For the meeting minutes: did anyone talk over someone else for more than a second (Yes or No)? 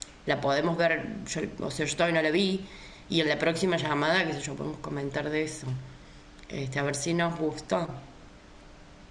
No